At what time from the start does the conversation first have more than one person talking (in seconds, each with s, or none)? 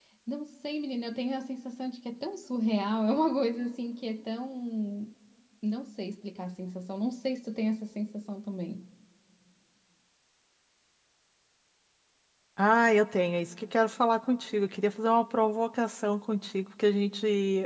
none